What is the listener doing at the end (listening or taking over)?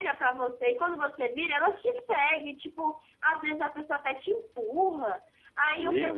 listening